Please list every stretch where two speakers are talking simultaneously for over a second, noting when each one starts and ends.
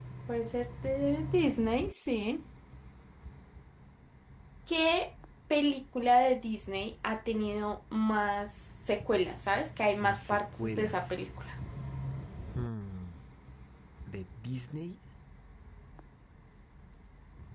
10.0-11.2

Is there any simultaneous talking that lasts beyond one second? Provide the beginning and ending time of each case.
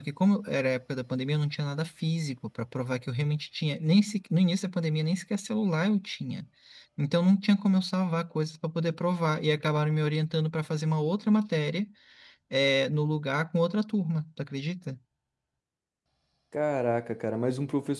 none

